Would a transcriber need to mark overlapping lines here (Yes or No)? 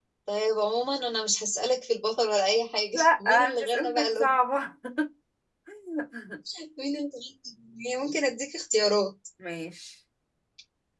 Yes